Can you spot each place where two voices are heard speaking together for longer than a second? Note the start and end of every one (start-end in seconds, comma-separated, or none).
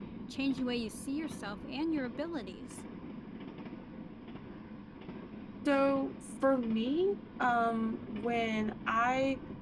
none